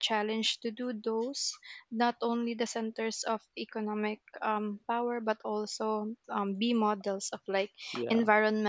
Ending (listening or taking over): listening